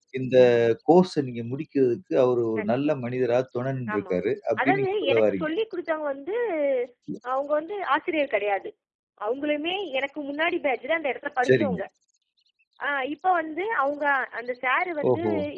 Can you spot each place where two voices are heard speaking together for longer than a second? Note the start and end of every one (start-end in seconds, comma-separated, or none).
3.9-5.5